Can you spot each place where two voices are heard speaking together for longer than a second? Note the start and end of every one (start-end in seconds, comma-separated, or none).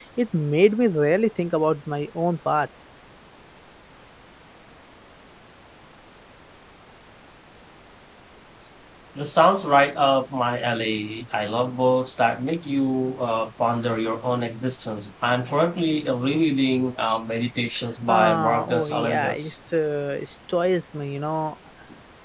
18.1-19.5